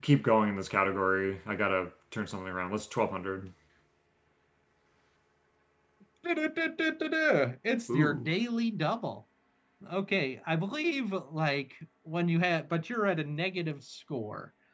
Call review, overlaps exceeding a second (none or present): none